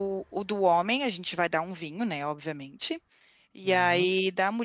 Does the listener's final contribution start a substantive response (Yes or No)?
No